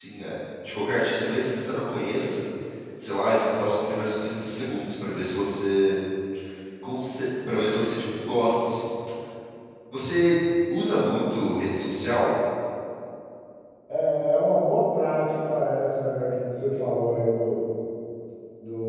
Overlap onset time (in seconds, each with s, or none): none